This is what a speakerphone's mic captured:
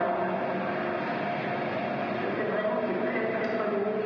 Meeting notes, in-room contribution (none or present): none